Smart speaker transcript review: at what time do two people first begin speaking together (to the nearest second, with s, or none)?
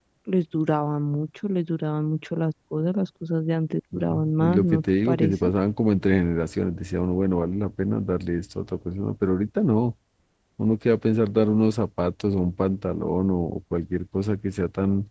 4 s